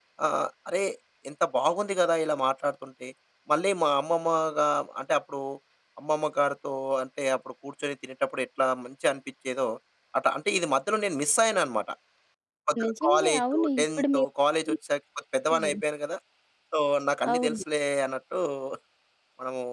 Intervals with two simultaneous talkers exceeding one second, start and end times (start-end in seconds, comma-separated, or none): 12.8-14.3